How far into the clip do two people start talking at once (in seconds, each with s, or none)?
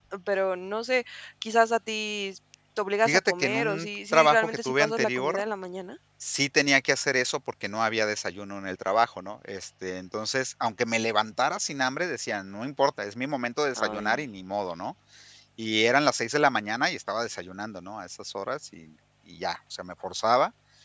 3.0 s